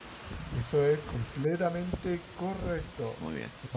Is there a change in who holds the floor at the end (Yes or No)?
No